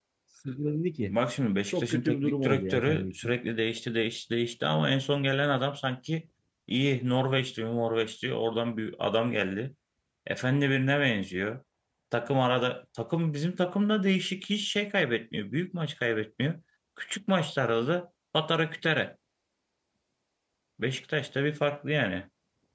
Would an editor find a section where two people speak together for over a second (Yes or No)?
Yes